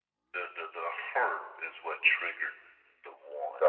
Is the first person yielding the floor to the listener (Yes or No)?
Yes